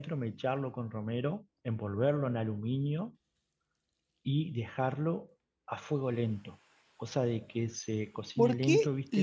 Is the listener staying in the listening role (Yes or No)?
No